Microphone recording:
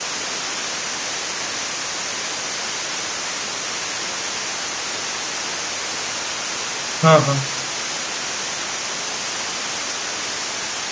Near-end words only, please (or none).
हां, हां.